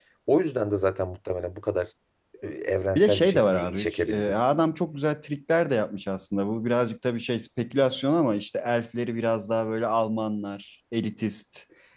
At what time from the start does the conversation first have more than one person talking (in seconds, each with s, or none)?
3.0 s